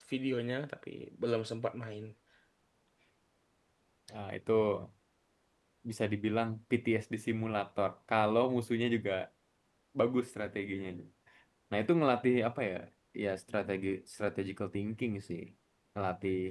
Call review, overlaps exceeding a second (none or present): none